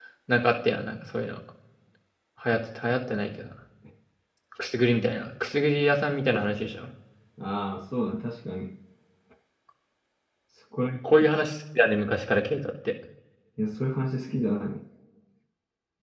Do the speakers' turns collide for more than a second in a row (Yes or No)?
No